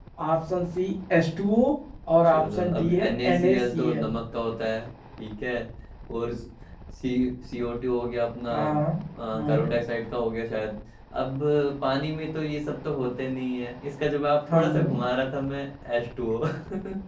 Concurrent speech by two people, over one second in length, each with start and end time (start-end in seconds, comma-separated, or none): 2.3-4.1